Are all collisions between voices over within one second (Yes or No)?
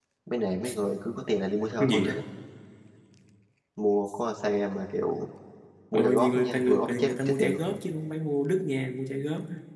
No